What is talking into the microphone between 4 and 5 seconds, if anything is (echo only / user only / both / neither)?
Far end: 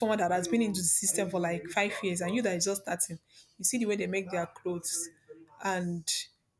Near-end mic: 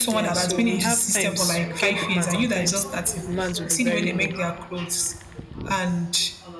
both